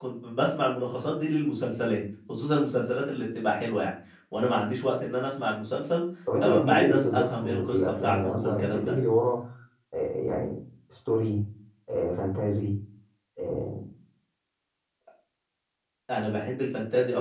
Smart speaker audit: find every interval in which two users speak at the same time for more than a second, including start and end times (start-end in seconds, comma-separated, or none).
6.4-8.9